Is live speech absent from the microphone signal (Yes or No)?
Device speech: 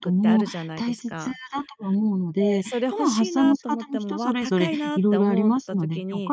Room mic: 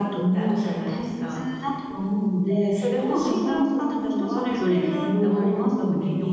Yes